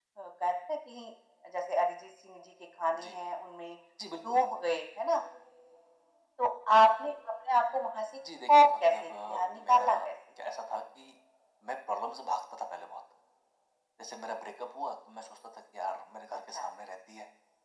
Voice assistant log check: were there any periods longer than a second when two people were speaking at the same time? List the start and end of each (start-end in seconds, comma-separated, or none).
8.5-10.1